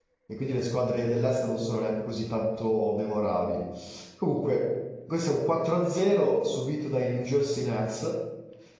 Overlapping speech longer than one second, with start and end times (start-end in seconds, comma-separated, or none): none